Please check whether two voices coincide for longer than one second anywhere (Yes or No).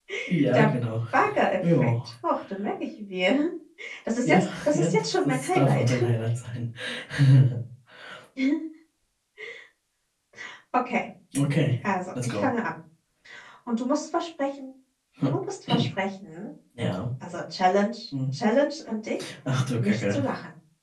Yes